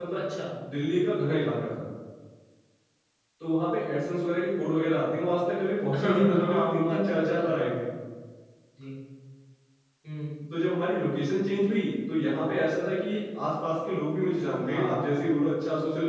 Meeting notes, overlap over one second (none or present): present